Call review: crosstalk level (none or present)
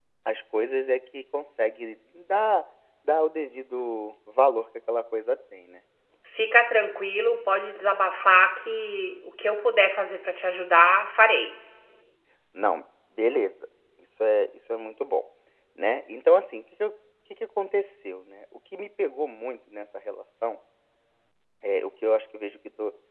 none